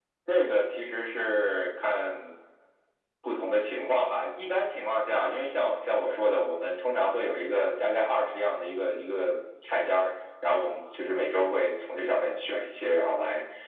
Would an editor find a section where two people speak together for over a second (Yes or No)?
No